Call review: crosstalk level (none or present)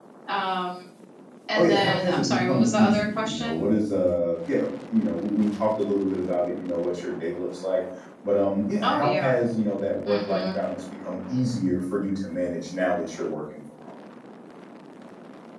present